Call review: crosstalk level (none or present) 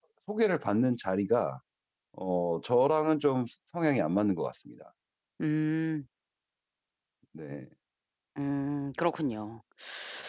none